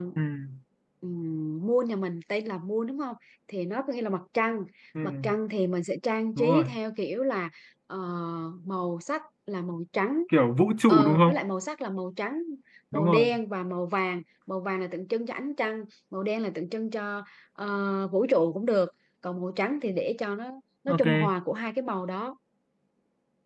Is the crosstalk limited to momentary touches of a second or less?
Yes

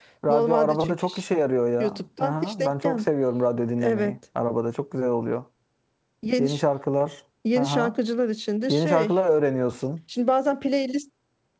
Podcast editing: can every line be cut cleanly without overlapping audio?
No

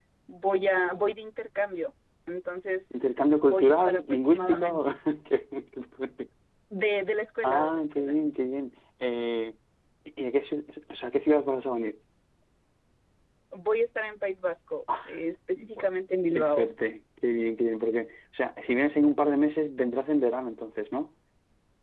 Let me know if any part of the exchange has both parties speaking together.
Yes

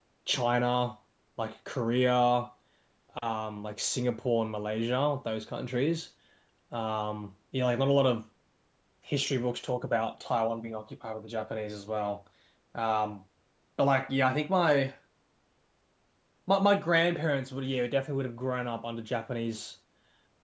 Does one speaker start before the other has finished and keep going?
No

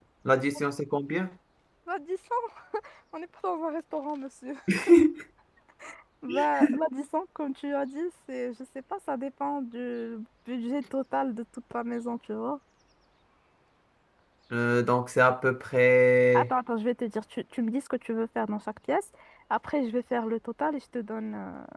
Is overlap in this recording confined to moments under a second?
Yes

